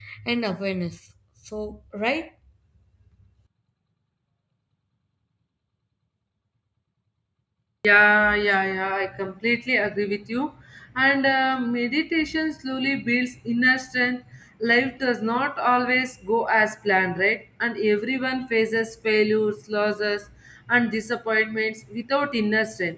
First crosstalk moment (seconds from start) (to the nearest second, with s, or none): none